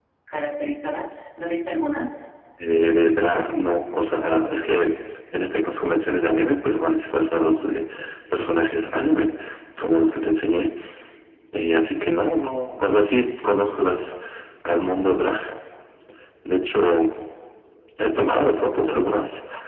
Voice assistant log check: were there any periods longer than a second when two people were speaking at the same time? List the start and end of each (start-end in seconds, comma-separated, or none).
none